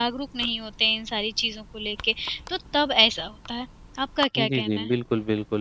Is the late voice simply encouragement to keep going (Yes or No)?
No